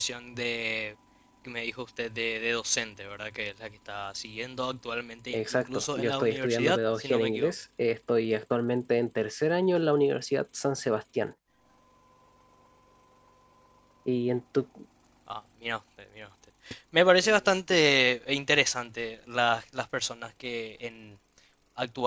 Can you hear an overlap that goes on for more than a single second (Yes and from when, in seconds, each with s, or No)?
Yes, from 5.3 s